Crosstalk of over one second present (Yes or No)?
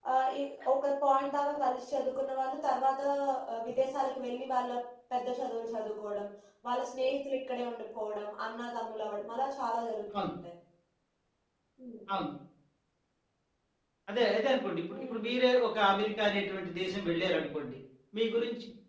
No